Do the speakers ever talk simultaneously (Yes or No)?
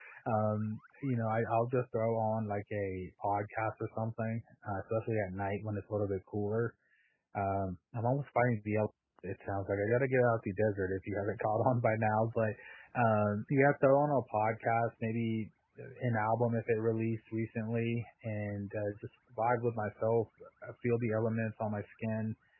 No